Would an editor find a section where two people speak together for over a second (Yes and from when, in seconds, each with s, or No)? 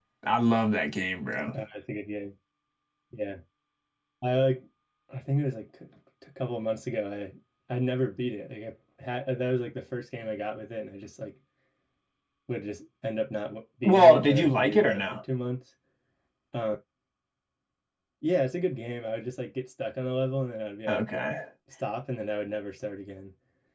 Yes, from 13.8 s